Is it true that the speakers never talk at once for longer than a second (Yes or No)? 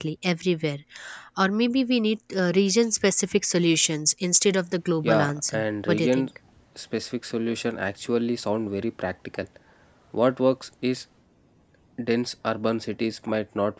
No